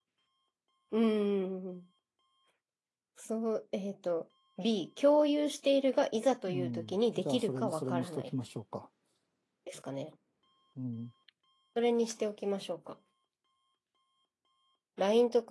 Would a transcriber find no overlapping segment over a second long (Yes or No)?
No